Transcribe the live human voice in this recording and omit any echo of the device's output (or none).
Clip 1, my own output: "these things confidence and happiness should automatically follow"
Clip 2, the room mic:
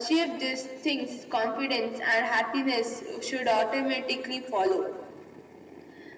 none